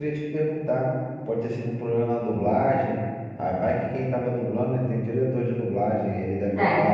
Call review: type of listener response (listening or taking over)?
listening